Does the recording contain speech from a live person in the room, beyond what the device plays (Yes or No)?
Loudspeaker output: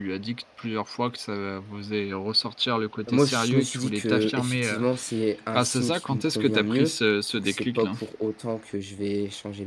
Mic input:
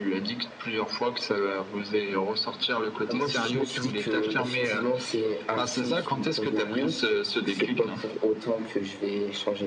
No